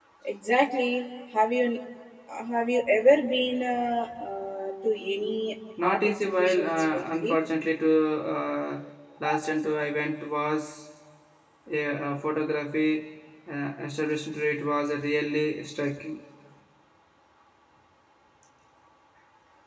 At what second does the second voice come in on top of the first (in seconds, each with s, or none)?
5.8 s